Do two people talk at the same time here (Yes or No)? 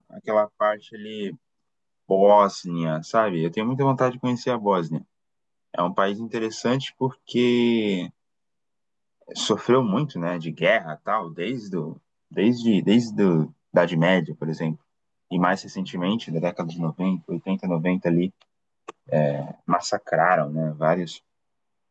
No